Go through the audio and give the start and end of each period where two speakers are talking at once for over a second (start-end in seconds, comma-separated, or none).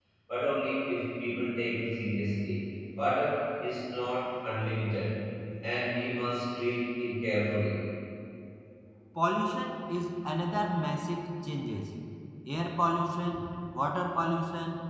none